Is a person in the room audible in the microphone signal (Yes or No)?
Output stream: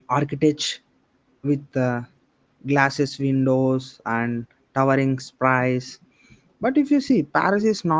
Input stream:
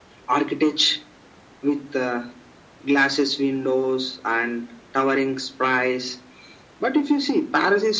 No